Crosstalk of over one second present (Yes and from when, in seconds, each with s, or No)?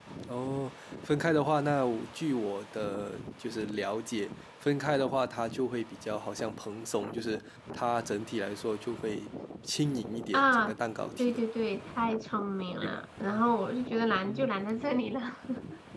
No